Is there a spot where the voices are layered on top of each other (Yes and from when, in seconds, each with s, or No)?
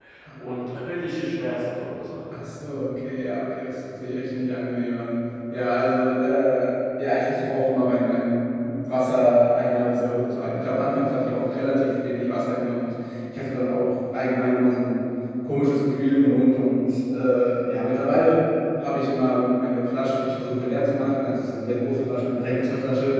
No